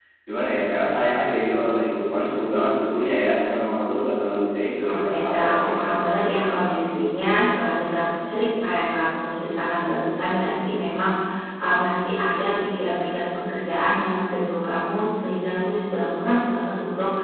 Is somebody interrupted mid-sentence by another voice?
Yes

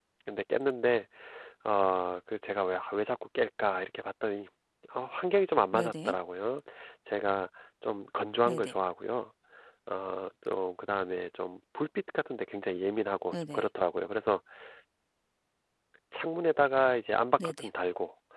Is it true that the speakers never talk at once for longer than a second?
Yes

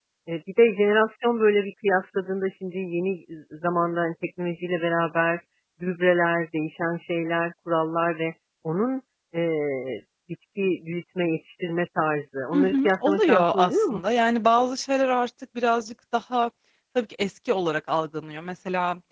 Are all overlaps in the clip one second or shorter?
No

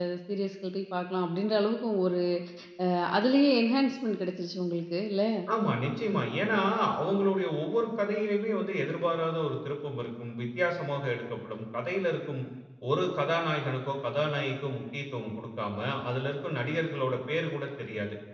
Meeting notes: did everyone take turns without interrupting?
Yes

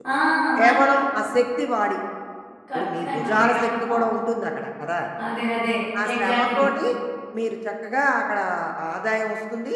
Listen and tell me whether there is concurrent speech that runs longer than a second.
Yes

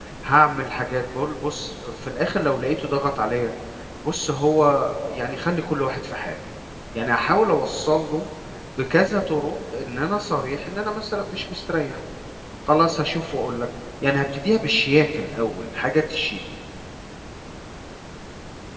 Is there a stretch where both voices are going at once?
No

